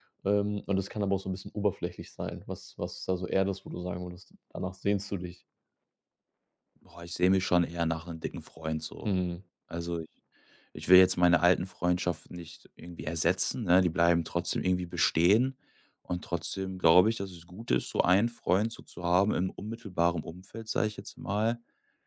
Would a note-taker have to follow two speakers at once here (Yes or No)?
No